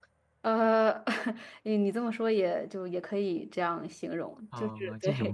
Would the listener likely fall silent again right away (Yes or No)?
No